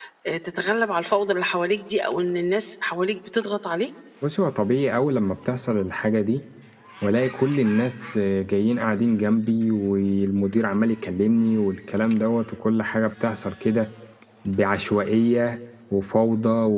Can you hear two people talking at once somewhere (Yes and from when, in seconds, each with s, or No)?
No